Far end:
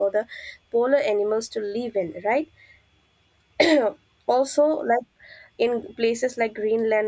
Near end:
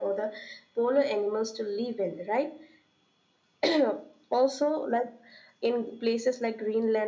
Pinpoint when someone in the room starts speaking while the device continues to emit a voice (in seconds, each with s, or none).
none